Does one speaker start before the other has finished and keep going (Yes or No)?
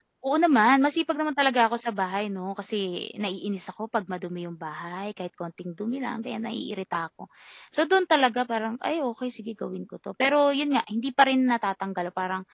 No